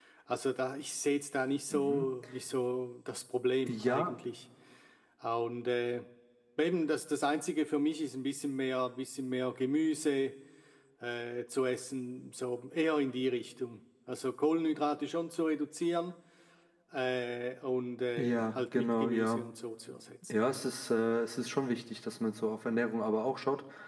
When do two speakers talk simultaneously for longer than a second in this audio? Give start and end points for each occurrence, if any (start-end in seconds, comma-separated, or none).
18.2-19.4